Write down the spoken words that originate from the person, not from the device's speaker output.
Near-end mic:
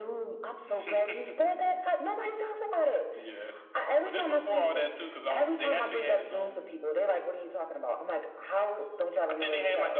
none

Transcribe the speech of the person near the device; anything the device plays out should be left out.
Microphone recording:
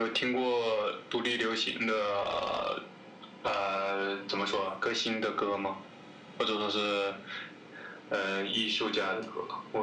none

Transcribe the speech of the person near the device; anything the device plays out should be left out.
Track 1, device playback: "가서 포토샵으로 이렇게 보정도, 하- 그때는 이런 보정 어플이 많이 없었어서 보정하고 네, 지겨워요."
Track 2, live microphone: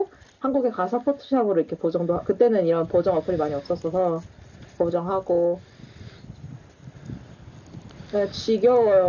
none

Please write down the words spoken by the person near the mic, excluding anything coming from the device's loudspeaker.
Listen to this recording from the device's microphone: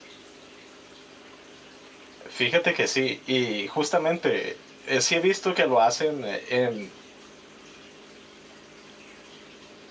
Fíjate que sí, y justamente eh, sí he visto que lo hacen eh, en,

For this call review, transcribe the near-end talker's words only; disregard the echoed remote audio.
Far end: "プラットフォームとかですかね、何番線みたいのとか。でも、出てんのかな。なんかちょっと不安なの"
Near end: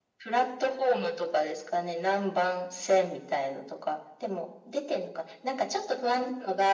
none

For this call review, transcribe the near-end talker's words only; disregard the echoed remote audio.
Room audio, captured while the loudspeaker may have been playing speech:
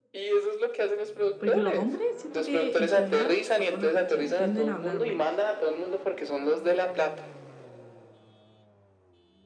Porque los hombres siento que en general, por lo menos acá en Chile, tienden a hablar menos.

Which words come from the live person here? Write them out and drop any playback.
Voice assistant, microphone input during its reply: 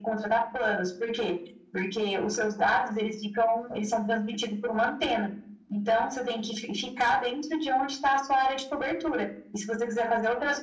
none

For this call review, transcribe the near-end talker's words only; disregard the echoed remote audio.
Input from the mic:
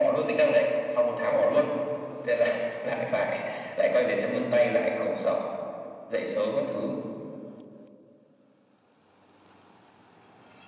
none

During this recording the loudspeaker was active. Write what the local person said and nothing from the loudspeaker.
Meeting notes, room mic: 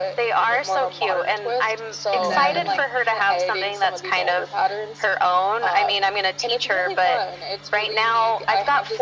and then uh,

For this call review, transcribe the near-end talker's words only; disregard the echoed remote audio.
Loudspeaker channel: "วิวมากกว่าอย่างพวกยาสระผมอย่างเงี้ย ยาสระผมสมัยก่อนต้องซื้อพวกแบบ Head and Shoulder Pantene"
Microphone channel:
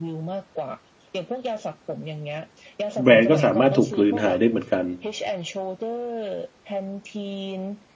แบรนด์ก็สามารถถูกกลืนหายได้เหมือนกัน

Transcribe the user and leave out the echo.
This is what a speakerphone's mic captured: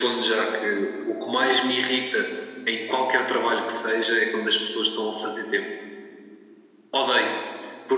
none

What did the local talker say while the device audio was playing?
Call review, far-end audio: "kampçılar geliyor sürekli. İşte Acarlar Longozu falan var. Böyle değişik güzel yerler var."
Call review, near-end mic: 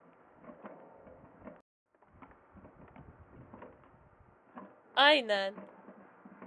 Aynen.

